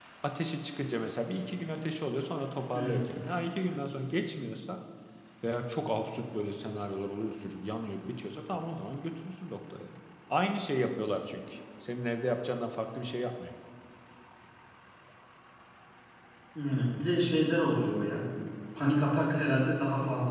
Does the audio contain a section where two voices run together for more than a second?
No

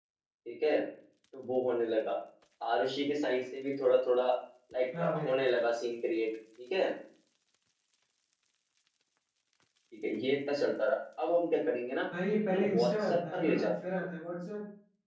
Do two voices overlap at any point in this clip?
Yes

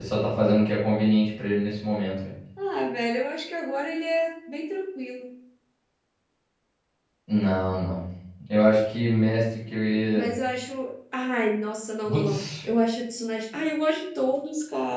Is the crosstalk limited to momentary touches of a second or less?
Yes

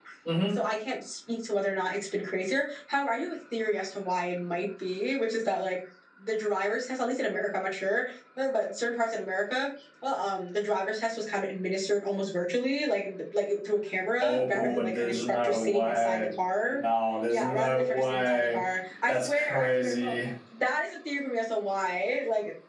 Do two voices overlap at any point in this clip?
Yes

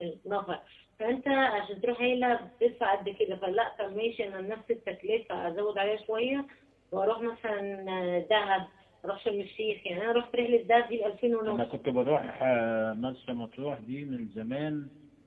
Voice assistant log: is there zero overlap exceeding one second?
Yes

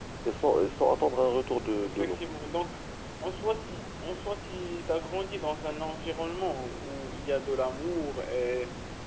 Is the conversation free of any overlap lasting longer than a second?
Yes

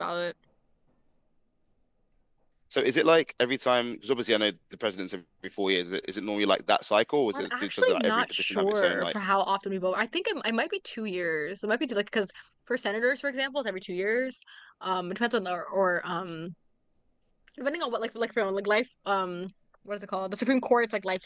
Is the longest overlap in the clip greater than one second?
Yes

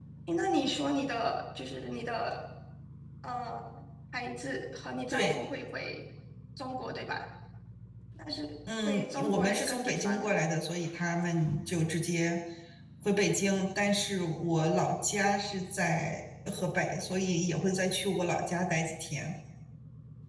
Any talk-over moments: Yes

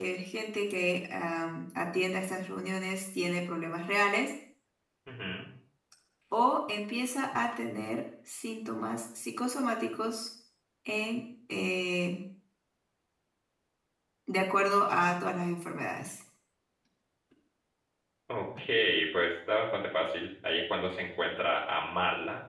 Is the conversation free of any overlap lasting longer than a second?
Yes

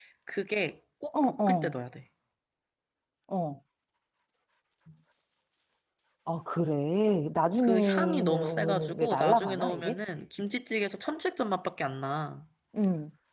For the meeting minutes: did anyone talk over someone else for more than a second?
Yes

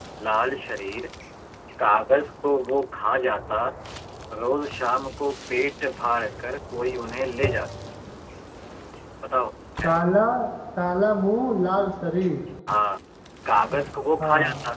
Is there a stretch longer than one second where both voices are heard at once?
No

